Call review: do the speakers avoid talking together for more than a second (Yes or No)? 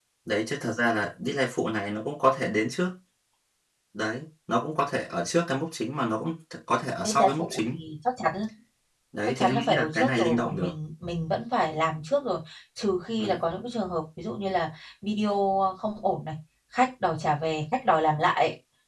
No